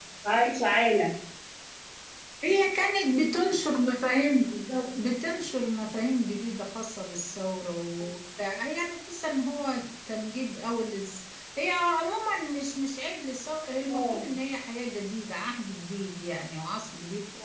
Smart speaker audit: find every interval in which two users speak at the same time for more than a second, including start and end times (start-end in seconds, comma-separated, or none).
none